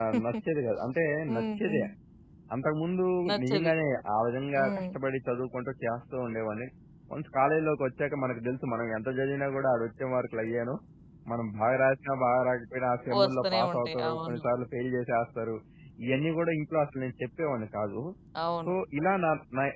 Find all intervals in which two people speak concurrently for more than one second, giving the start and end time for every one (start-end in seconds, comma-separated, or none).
13.2-14.4